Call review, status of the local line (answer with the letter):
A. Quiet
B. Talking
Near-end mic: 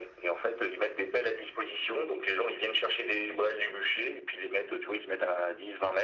A